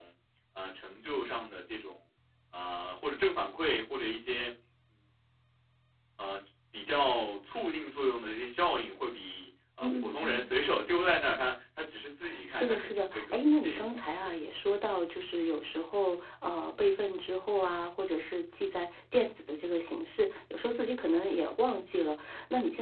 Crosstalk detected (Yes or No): Yes